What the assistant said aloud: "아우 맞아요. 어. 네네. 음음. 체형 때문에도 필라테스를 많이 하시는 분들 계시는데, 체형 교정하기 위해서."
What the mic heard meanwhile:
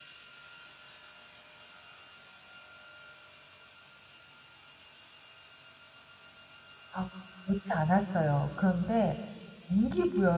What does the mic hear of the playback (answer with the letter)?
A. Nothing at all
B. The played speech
A